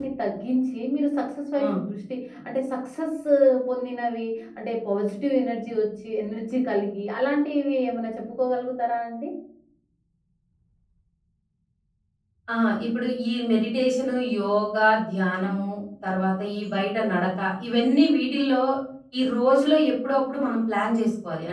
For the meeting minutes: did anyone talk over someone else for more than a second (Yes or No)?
No